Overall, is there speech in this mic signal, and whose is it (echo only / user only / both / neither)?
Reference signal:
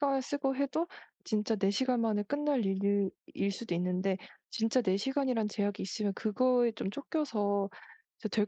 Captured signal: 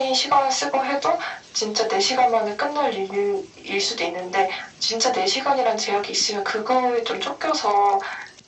echo only